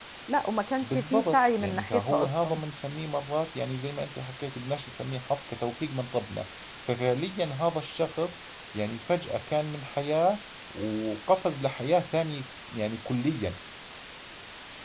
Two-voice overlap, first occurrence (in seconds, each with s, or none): 0.8 s